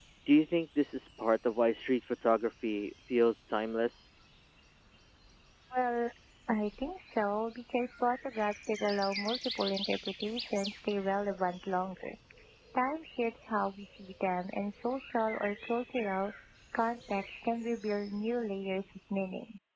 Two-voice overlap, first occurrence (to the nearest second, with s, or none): none